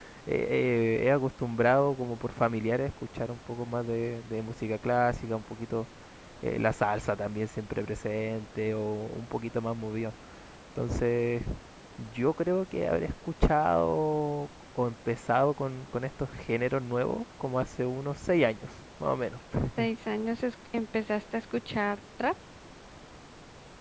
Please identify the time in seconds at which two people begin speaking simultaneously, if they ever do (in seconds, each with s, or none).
none